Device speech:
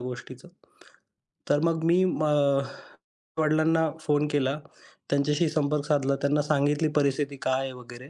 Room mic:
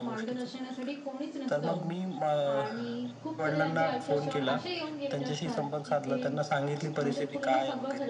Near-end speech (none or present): present